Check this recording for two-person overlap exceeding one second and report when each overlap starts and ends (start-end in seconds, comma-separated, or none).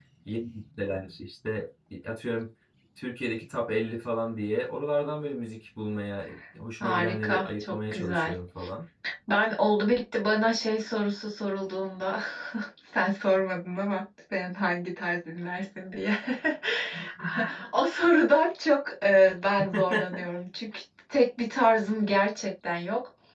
6.8-8.3